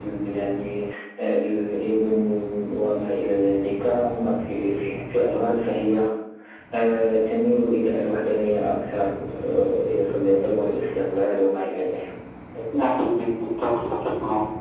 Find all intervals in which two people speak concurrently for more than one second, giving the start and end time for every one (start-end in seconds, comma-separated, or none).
none